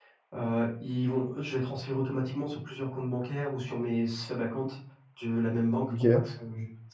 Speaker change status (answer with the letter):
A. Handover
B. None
B